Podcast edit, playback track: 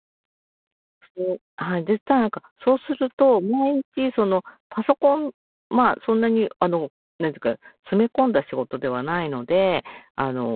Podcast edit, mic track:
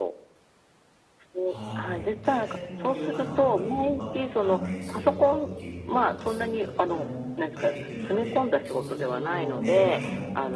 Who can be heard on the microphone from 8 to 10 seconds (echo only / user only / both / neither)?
both